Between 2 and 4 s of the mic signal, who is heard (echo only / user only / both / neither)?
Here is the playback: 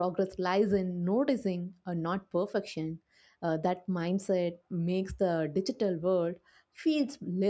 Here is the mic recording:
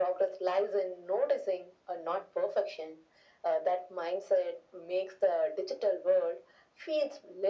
echo only